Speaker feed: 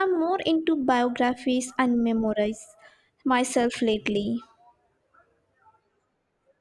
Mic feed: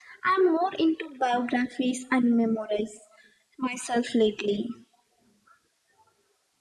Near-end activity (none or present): none